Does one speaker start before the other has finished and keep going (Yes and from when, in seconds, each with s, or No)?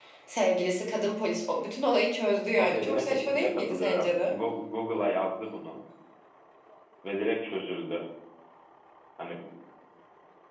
Yes, from 2.6 s